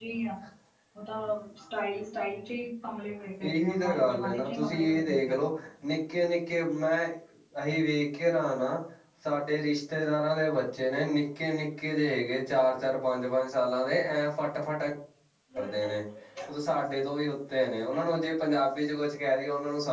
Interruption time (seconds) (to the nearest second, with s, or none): 3 s